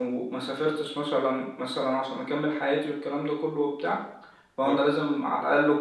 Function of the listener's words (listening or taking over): listening